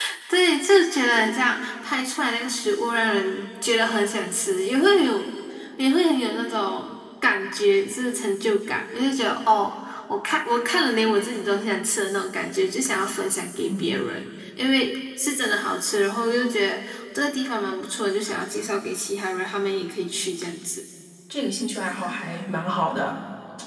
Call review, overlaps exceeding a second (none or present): none